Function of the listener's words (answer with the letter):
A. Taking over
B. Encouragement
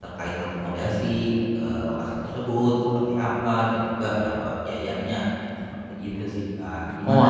A